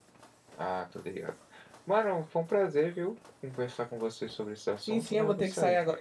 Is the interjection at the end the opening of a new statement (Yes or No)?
Yes